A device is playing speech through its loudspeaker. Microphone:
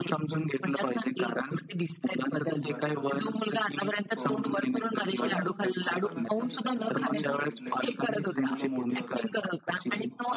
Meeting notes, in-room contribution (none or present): present